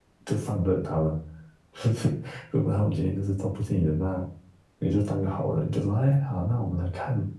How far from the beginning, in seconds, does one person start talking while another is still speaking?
none

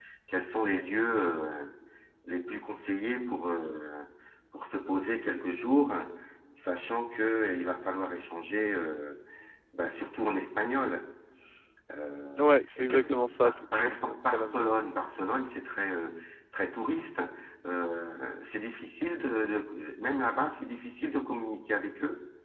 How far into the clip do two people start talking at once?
12.4 s

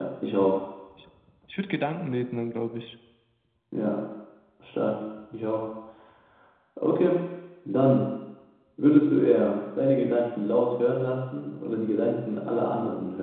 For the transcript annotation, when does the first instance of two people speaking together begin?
none

